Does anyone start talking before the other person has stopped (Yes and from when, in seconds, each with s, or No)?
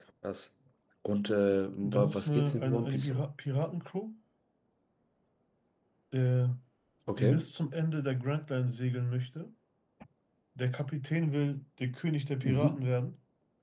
Yes, from 1.8 s